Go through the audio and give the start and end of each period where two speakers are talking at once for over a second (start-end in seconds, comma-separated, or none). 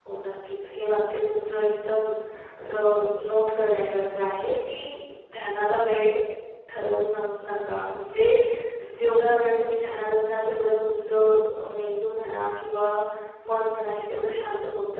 none